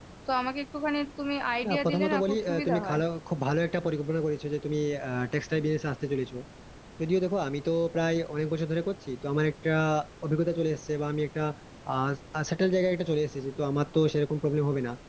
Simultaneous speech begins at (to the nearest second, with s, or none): 2 s